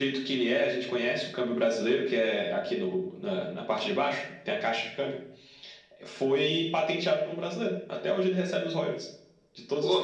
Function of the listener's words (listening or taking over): listening